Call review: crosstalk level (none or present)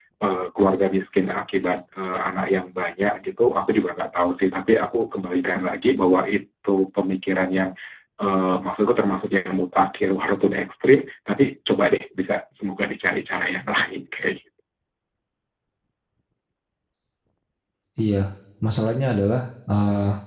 none